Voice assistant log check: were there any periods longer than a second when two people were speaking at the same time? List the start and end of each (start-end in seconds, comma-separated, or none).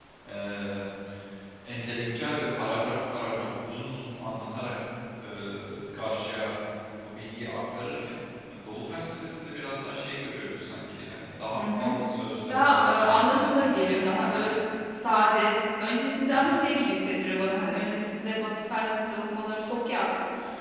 12.5-14.5